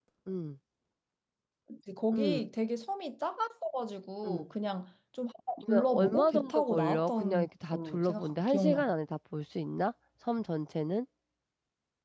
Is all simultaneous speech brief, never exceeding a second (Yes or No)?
No